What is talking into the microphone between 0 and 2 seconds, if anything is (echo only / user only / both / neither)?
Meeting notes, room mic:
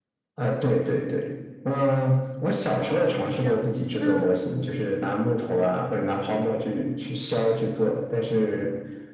echo only